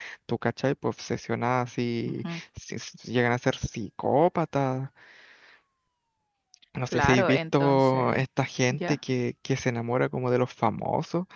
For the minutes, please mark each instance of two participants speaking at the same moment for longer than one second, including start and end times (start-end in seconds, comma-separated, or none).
6.9-8.2